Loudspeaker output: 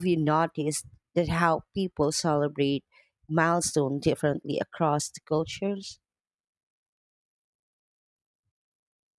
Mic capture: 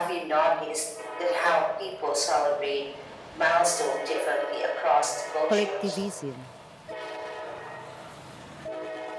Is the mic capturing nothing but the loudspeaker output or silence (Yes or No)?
No